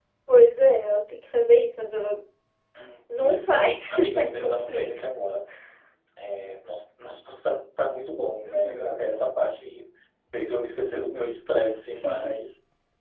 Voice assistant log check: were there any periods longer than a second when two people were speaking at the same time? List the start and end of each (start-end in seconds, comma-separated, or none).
3.2-5.1